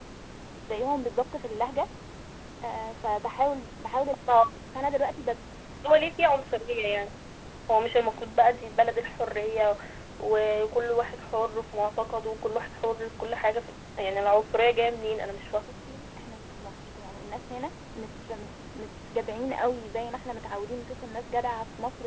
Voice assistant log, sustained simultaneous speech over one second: none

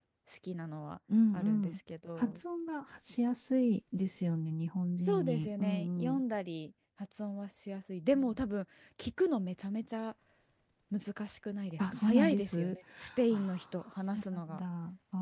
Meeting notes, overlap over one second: present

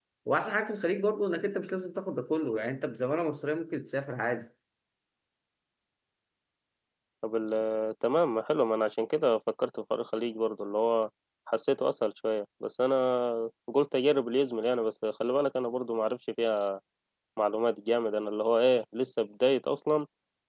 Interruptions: none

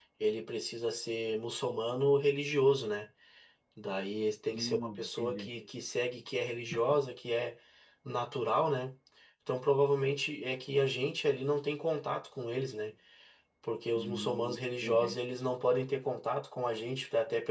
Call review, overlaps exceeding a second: present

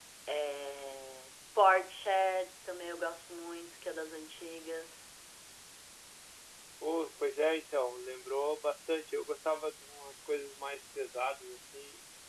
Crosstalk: none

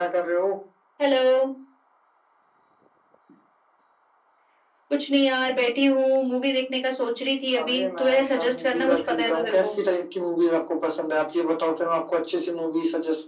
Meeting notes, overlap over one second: present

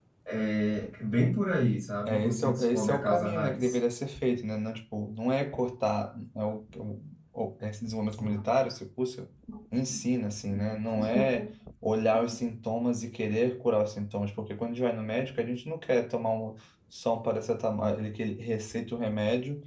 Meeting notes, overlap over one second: present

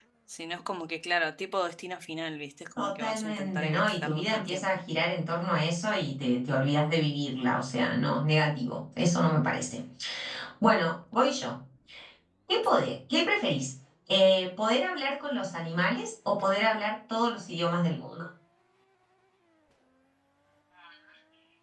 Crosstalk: present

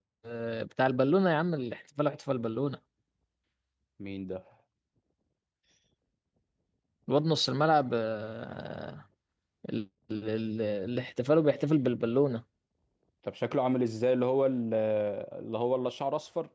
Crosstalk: none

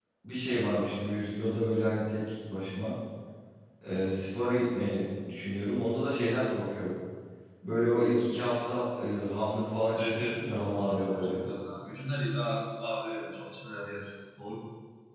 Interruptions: present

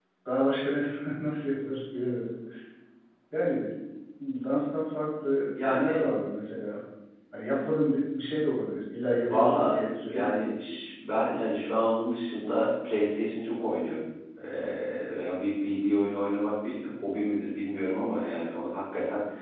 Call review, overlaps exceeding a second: present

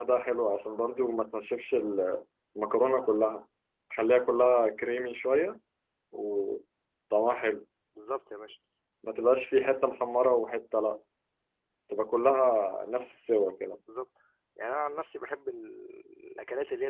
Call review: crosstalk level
none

